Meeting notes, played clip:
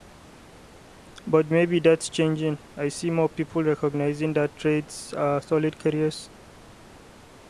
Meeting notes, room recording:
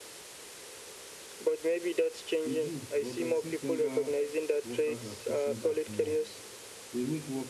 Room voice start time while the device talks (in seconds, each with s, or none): 2.4 s